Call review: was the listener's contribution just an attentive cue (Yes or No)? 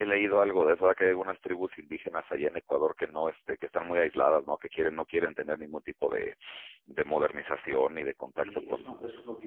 No